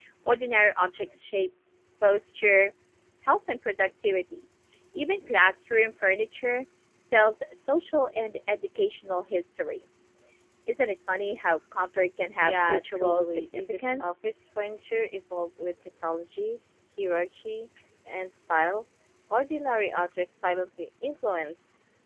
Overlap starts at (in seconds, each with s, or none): 12.4 s